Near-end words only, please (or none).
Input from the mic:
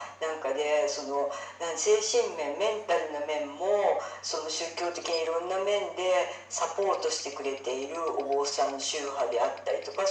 none